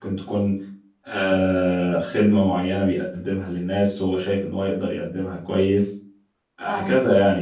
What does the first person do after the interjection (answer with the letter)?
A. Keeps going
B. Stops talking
A